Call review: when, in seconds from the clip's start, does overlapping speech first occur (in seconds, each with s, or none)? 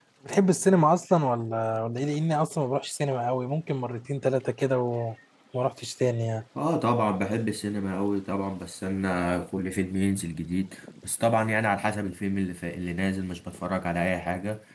none